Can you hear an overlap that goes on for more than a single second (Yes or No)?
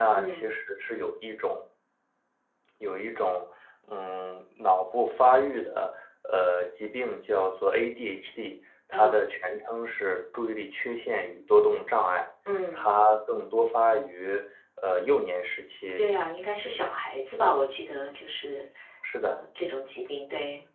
No